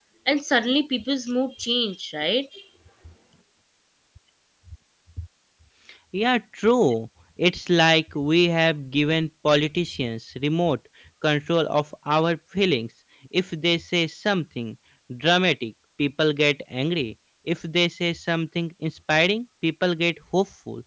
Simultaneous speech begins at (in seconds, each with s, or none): none